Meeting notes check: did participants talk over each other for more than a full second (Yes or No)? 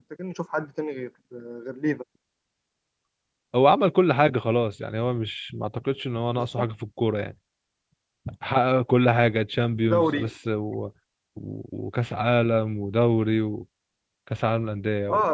No